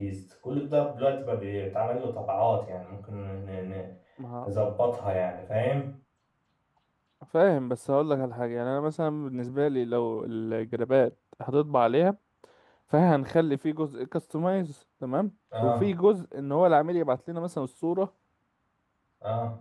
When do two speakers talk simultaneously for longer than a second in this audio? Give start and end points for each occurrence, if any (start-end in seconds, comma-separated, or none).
none